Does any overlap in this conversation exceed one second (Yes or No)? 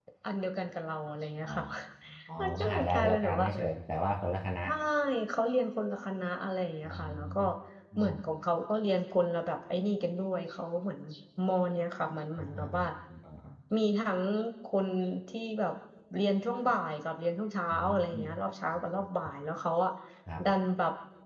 Yes